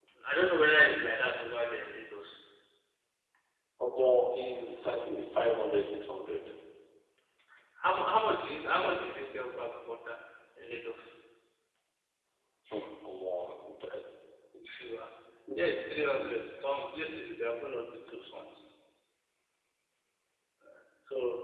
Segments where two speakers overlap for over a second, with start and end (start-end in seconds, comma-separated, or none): none